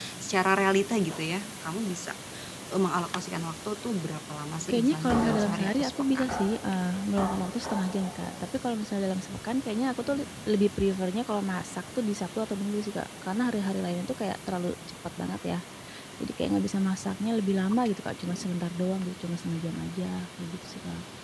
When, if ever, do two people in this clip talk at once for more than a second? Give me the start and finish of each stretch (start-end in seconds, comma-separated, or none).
4.7-6.3